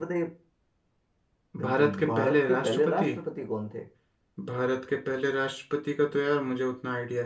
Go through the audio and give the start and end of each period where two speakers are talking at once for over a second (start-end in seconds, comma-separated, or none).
1.6-3.1